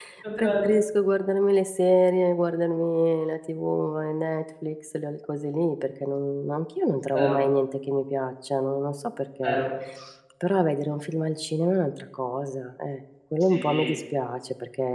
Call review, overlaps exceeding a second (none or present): none